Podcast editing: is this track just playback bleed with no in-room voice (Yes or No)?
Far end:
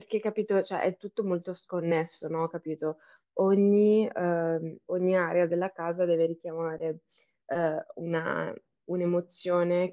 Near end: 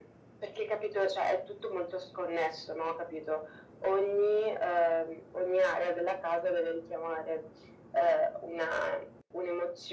Yes